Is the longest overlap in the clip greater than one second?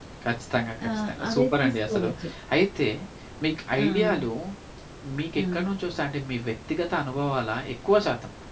Yes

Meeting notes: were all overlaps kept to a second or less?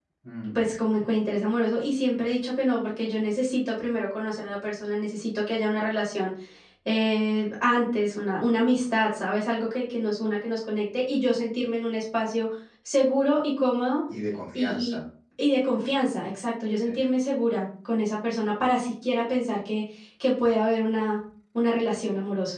Yes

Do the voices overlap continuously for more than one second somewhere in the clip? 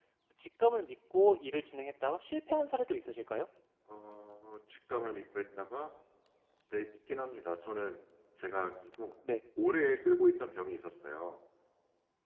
No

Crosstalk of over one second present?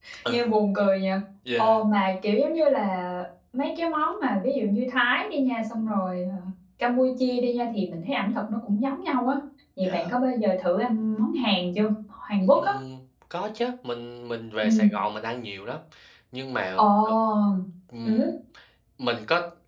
No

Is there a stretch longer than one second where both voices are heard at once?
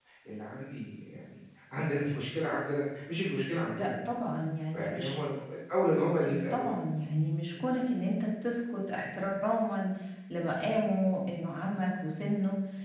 No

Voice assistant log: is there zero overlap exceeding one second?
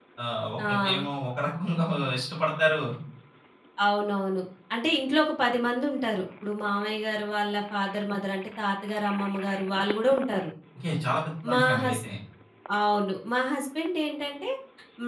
Yes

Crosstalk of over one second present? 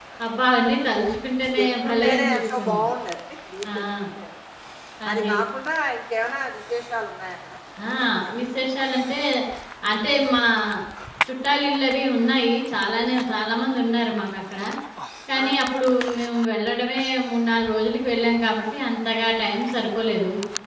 Yes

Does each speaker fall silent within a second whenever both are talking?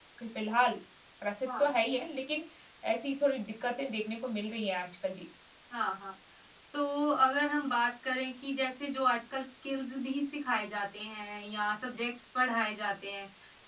Yes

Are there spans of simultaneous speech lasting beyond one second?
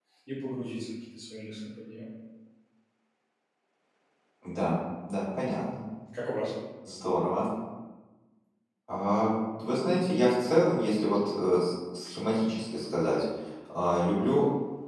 No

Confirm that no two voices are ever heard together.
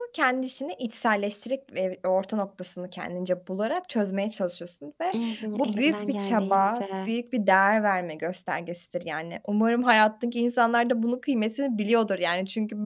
No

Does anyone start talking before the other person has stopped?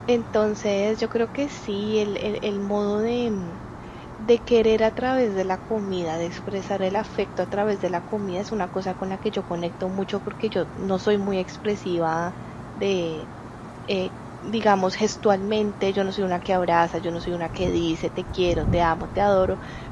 No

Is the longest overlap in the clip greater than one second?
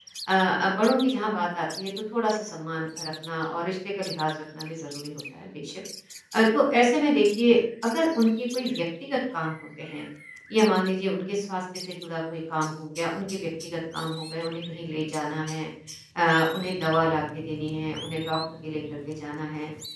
No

